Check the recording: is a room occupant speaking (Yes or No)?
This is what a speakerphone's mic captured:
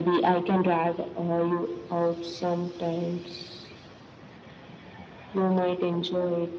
No